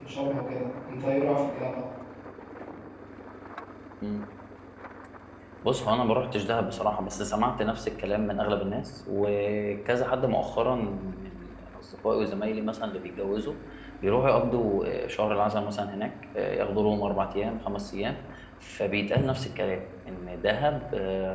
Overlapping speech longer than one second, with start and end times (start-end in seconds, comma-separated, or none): none